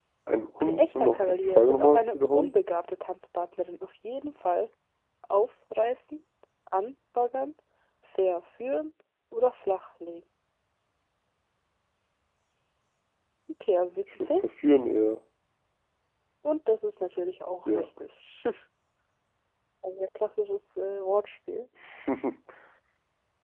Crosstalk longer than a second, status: present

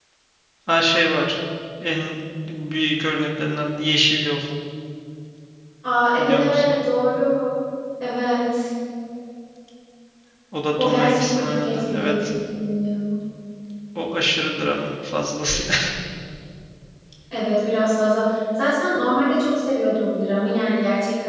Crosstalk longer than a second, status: present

